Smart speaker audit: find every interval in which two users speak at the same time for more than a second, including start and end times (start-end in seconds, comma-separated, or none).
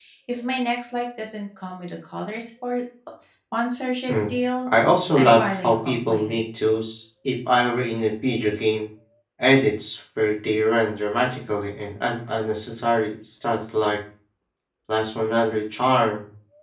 5.2-6.4